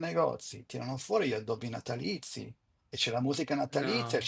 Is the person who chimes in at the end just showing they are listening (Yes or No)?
Yes